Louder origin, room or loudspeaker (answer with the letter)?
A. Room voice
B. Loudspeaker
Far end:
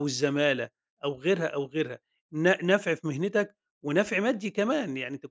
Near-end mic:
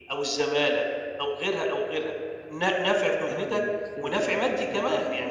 B